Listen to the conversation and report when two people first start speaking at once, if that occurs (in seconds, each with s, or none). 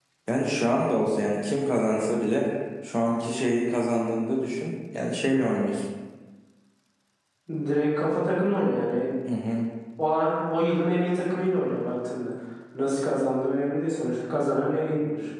none